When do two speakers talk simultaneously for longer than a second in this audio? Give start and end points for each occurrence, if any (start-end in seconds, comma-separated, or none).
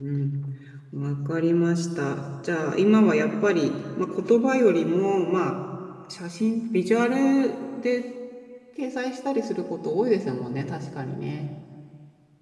none